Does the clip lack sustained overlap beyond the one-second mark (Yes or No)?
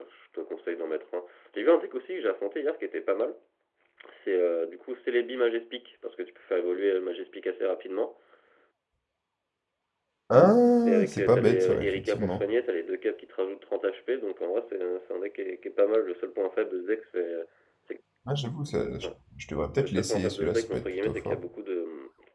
No